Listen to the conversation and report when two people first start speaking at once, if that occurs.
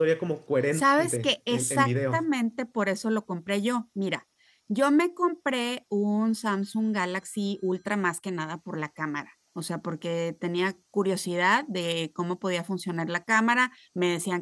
0.7 s

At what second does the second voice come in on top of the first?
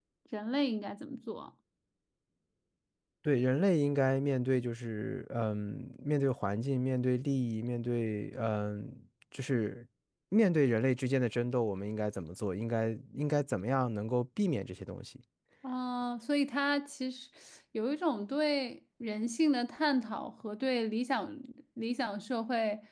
none

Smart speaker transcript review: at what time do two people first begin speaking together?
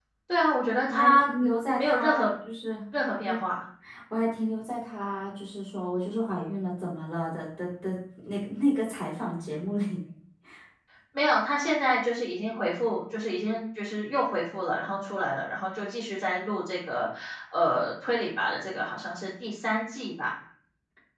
0.9 s

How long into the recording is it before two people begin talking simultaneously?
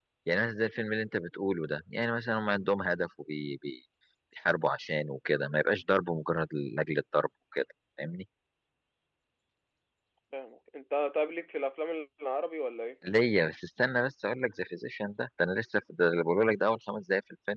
none

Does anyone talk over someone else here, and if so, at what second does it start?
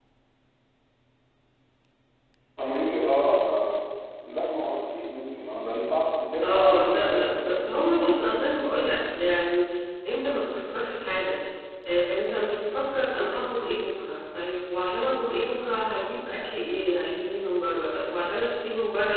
6.4 s

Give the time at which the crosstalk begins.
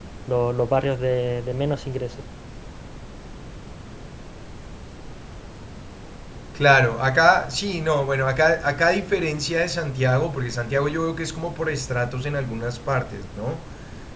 none

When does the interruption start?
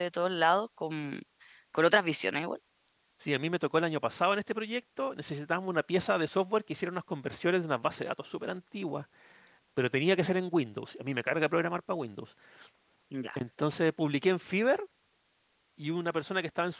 none

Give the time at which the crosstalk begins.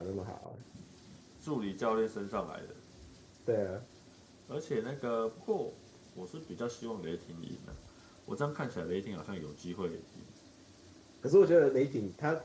none

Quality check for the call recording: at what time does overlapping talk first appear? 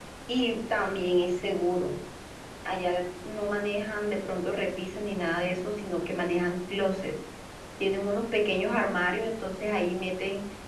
none

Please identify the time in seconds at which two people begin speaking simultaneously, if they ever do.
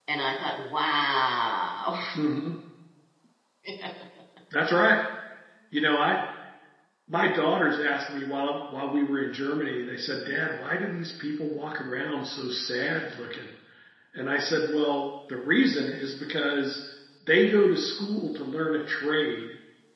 none

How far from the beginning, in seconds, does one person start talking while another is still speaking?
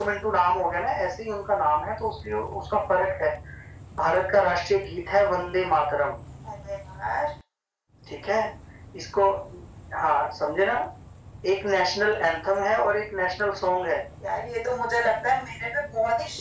none

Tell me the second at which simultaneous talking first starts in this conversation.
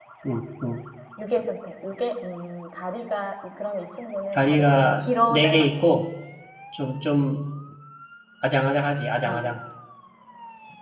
4.3 s

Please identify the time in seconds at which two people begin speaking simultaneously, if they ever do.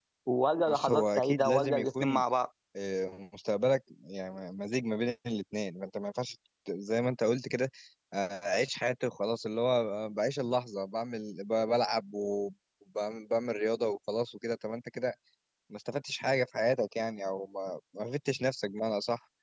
0.7 s

